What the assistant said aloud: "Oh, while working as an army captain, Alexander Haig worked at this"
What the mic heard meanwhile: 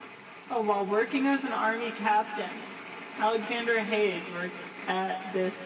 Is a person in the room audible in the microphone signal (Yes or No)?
No